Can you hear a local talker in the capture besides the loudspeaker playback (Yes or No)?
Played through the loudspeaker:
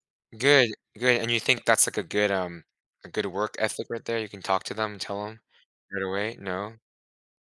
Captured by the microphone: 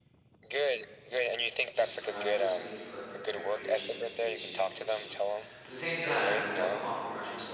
Yes